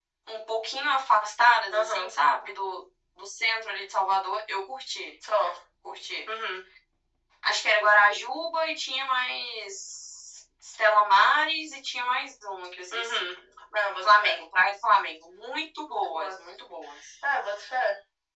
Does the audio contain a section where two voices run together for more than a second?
No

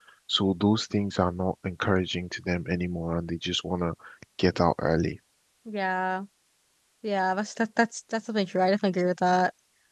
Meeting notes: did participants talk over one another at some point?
No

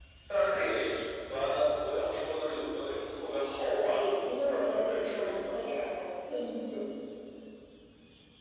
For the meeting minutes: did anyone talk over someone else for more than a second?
Yes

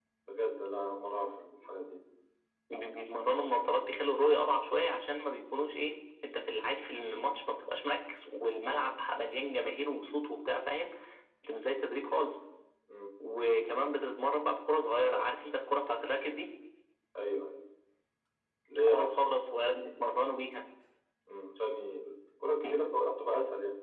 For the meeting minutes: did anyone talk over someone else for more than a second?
No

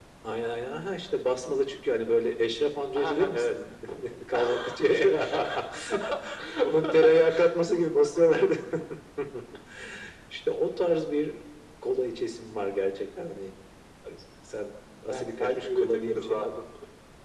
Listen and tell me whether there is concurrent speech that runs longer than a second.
Yes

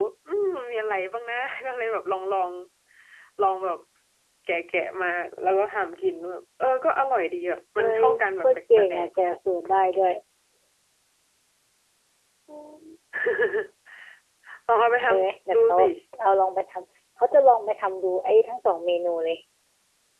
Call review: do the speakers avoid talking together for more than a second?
No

